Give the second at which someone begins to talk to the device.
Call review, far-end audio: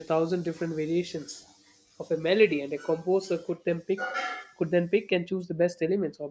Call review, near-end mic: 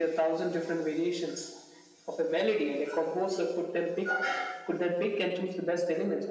none

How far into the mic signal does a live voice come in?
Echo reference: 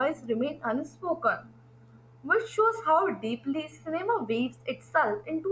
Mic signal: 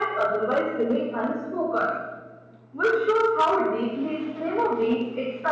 none

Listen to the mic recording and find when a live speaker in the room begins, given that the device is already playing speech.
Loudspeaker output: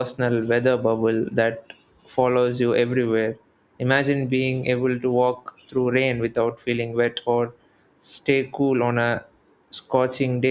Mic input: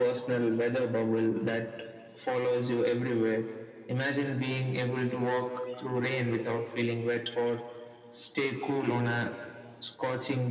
none

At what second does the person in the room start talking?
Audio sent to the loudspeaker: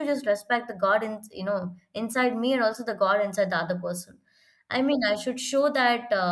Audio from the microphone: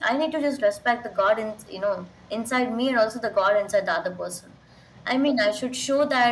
none

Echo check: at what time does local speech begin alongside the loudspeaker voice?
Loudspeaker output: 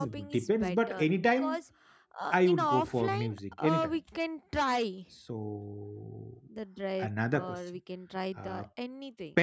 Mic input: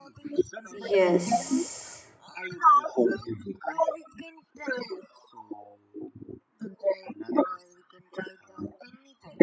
1 s

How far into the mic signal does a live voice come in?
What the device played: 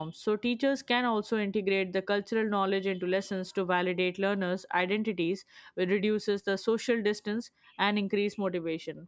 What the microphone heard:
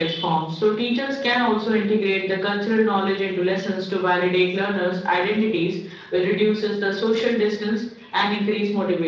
none

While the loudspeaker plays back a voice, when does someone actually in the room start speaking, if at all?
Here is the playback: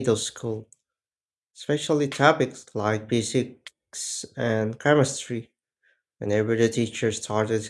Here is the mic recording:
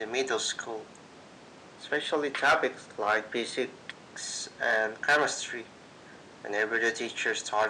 none

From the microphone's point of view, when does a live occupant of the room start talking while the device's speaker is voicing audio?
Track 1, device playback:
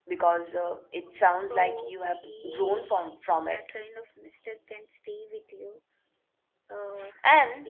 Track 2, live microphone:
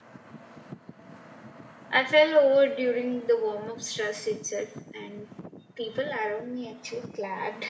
2 s

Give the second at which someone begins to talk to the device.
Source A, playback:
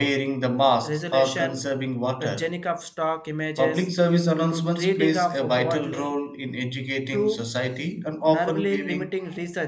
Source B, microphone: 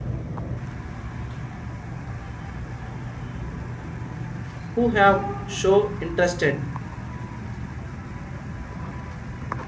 5 s

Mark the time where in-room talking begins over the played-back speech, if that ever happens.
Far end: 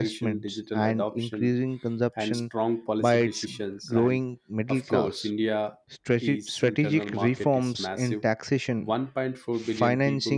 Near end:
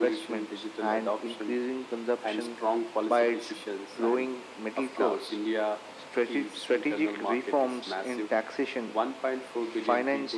none

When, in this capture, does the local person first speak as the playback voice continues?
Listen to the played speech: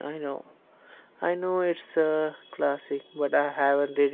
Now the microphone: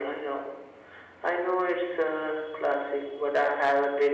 none

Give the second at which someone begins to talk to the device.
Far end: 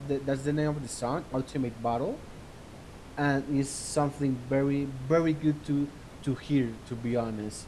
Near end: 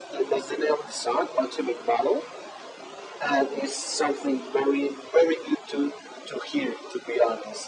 none

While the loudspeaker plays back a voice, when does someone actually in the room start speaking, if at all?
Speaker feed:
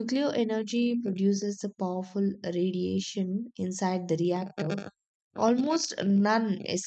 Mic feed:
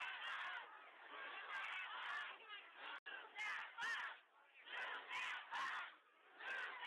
none

